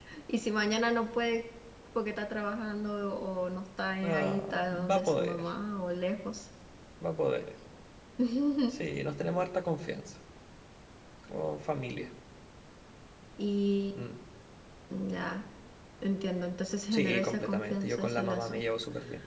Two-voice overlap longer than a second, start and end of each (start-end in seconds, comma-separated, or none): 4.0-5.4, 16.9-18.6